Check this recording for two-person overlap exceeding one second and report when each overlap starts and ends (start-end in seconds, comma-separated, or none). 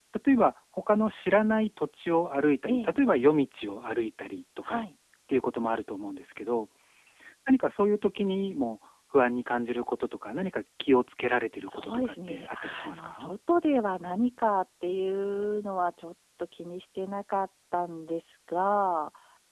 11.7-13.3